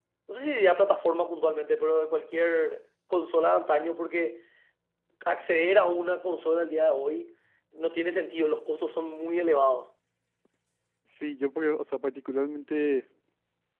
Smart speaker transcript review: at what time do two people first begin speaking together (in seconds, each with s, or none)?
none